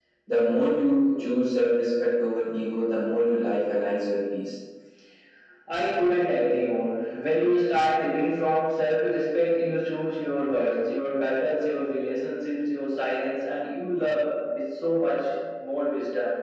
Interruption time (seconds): none

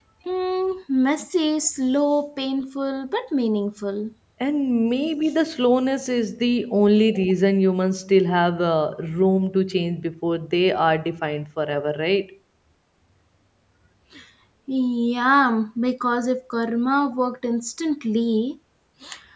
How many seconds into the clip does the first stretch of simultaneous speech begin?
none

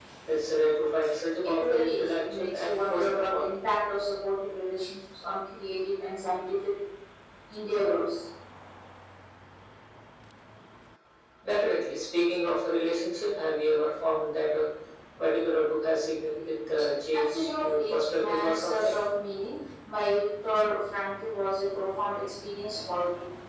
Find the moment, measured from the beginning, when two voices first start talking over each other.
1.6 s

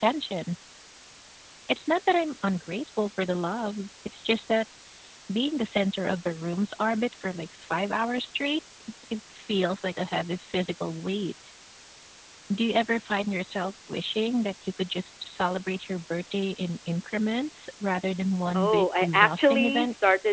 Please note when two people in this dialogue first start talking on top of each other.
18.5 s

